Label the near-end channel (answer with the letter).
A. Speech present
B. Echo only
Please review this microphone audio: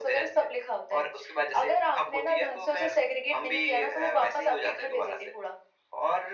B